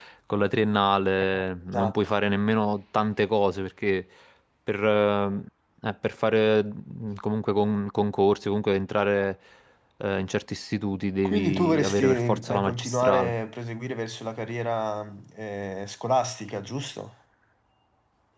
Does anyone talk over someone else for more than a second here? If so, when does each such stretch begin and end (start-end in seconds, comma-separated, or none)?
11.2-13.3